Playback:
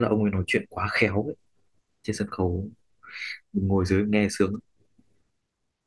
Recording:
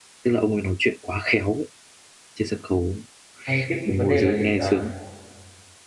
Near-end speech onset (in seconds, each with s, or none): 3.5 s